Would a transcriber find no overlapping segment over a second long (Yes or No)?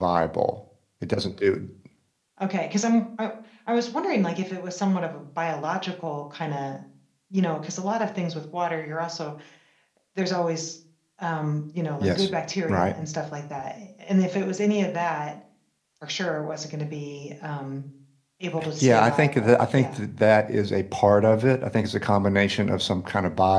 No